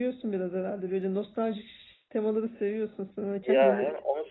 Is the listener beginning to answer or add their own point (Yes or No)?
Yes